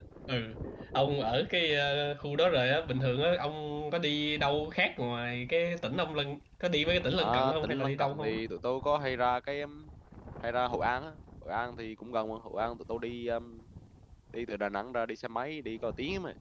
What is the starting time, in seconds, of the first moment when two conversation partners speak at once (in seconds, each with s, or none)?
7.2 s